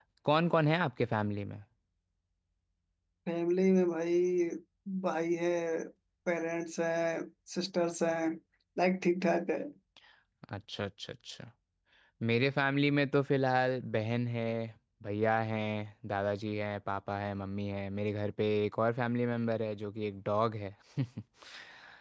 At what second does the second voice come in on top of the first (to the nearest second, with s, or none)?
none